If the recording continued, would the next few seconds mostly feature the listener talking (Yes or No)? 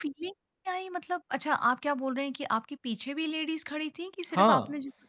Yes